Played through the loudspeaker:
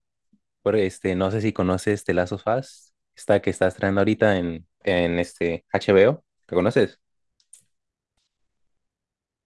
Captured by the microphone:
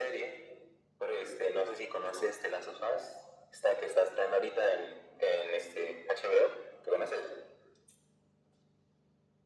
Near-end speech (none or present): none